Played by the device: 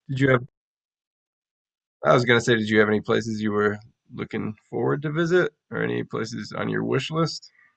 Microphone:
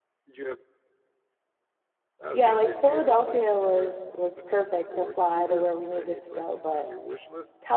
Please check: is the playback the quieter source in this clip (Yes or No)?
Yes